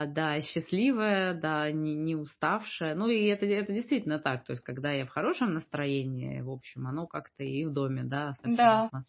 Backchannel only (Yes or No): Yes